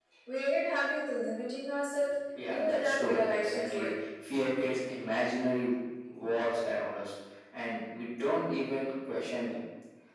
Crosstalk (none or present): present